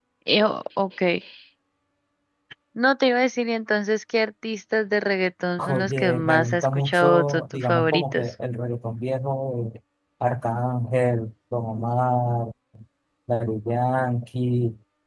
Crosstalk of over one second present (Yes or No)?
Yes